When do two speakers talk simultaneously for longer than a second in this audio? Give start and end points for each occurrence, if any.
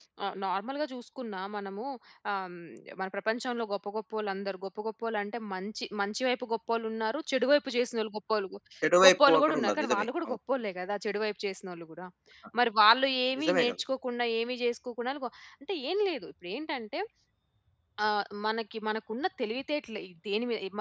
9.0-10.4

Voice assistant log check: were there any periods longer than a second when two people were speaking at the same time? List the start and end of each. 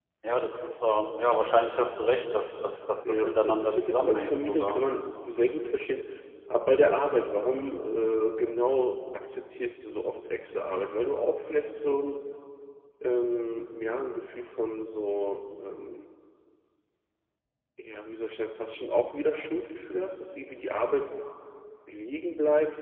3.0-4.8

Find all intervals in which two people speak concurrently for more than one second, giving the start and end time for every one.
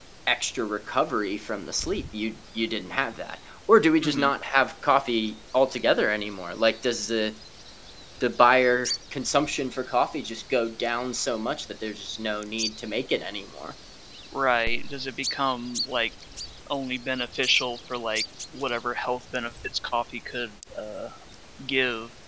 none

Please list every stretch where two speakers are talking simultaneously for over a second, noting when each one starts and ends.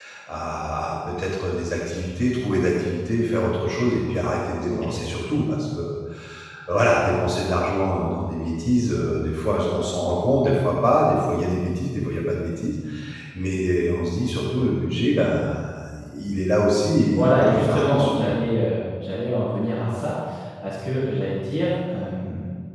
17.1-18.3

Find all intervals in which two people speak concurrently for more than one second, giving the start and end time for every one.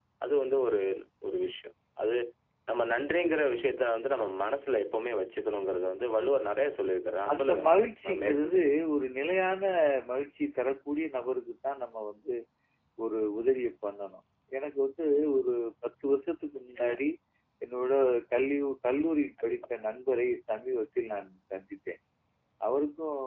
none

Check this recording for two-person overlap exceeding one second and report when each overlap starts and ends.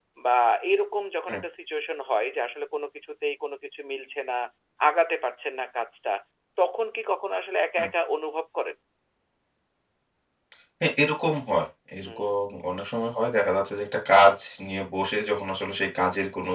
none

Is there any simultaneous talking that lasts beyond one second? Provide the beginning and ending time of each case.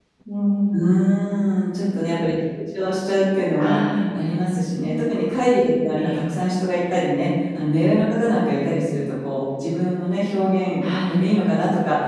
none

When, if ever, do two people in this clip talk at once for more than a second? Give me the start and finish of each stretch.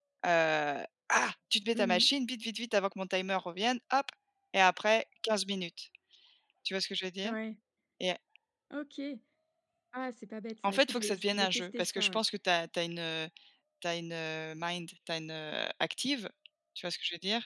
10.7-12.2

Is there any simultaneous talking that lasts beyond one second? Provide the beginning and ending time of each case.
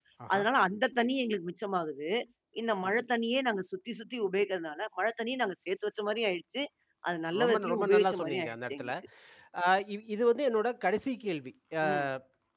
7.4-8.9

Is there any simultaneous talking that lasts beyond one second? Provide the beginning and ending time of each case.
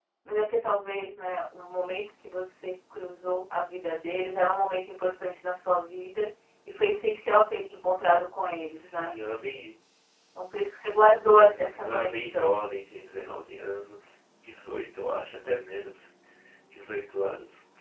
11.3-12.6

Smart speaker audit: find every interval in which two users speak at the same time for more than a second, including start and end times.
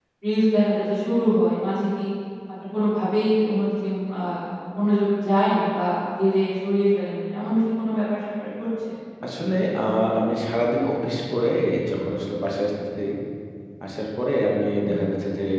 none

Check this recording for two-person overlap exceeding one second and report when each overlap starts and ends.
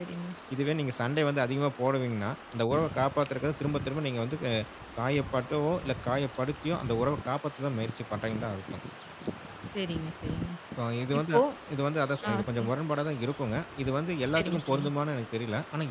none

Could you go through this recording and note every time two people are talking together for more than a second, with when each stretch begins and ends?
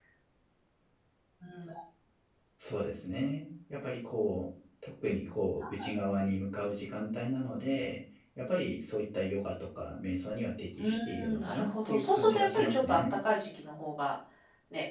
10.8-13.0

